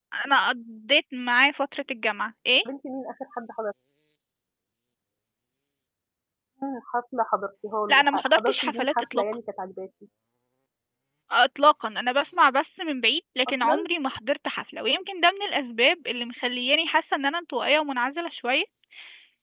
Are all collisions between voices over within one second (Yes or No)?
No